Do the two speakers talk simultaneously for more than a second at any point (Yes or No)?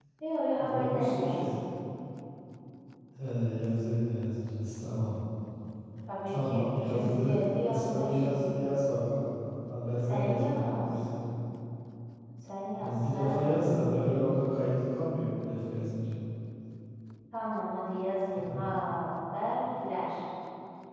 Yes